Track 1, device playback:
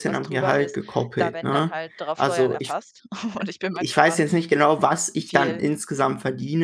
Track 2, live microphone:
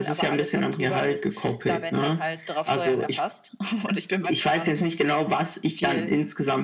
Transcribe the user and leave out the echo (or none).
none